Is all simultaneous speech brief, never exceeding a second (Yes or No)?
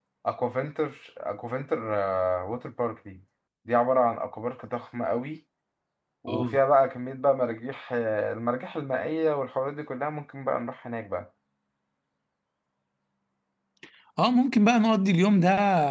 Yes